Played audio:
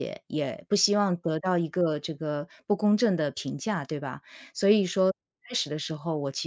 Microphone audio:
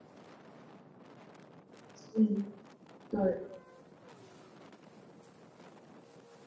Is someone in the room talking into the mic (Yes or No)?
Yes